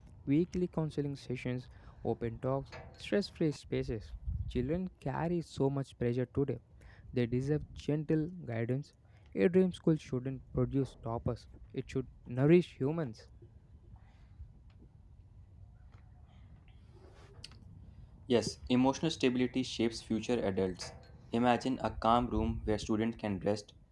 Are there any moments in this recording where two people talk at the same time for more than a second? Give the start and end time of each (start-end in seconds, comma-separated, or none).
none